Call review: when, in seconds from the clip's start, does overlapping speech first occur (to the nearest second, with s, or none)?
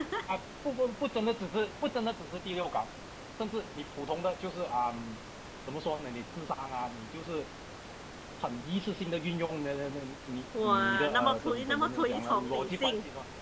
11 s